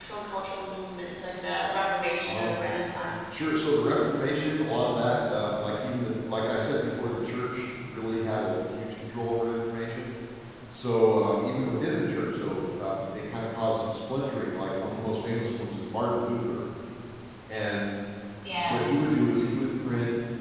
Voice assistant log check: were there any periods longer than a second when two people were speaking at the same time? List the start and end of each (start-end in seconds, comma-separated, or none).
none